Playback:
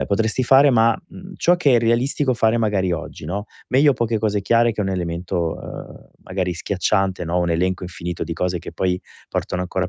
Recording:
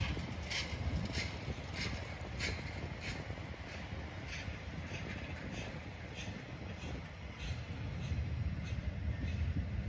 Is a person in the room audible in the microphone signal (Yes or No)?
No